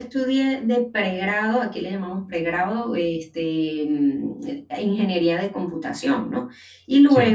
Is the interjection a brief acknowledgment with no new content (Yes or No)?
Yes